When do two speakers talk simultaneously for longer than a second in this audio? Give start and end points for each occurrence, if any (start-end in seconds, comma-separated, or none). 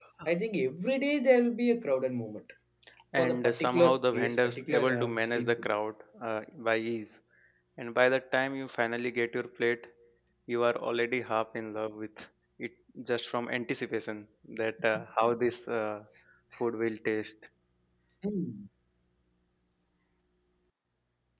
3.2-5.7